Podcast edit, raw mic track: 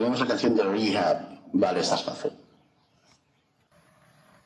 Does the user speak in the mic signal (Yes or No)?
No